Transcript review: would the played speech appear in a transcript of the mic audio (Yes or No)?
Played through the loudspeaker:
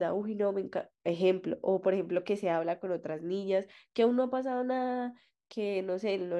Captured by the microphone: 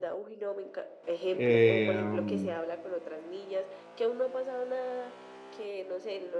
Yes